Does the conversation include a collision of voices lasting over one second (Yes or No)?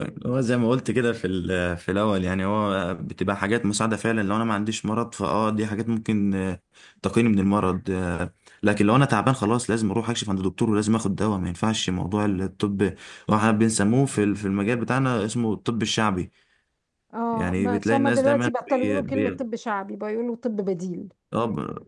Yes